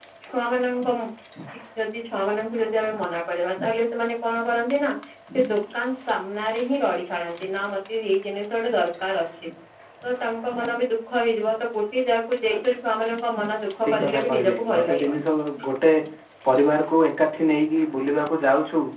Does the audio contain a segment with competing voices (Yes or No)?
Yes